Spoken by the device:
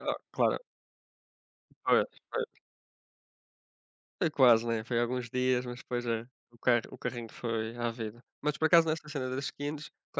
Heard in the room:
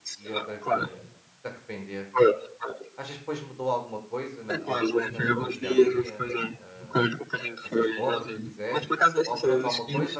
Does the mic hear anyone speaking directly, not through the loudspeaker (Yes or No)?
Yes